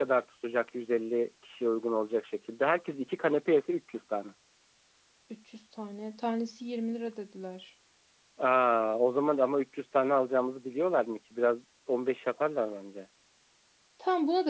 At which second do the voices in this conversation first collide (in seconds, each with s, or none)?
none